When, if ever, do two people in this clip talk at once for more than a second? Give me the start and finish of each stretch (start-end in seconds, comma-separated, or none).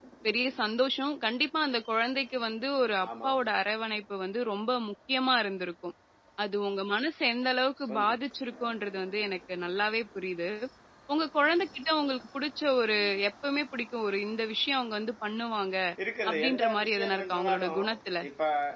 16.3-17.8